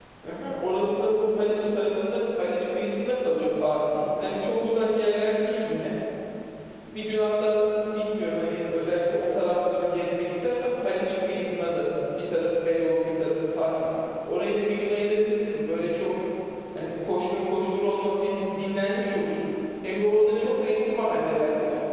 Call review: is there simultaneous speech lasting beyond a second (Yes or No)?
No